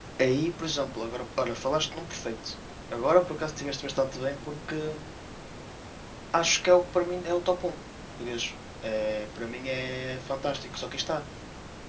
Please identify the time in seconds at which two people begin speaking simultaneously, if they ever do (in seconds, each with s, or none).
none